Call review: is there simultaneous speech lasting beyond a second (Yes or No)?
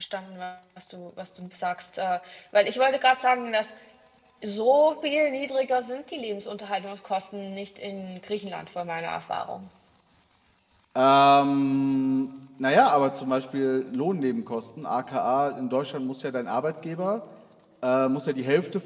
No